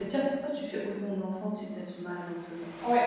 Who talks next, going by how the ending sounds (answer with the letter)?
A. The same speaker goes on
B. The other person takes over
B